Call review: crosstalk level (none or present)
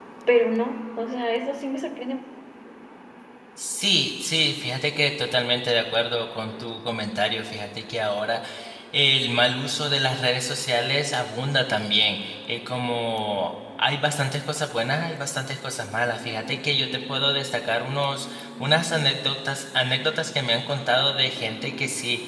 none